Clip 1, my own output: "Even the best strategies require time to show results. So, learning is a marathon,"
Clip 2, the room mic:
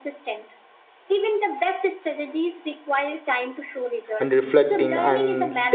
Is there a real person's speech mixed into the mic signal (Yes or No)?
Yes